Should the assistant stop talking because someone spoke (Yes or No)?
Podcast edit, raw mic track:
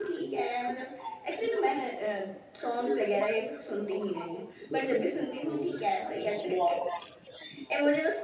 Yes